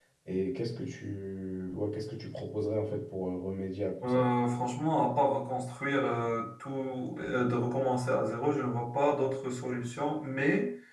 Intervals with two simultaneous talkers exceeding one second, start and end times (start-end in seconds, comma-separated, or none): none